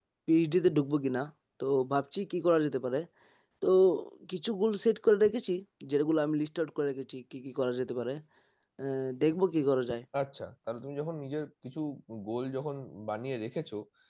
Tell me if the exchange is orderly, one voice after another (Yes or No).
Yes